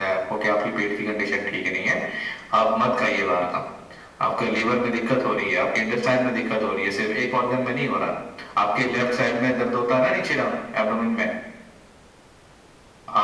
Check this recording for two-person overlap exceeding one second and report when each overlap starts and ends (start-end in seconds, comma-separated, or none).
none